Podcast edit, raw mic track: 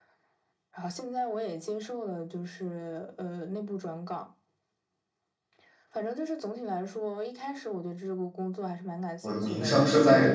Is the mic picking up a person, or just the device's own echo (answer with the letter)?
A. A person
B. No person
A